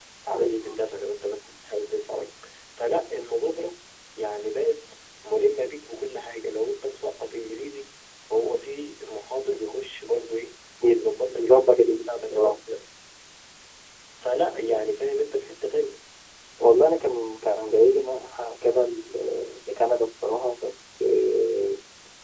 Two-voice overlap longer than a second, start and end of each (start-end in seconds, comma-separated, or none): 10.9-12.6